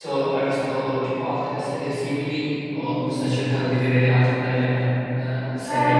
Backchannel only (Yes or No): No